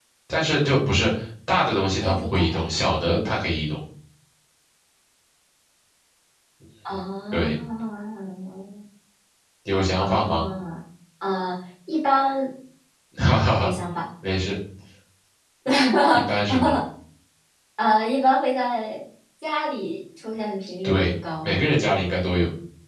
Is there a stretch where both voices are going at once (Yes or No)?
Yes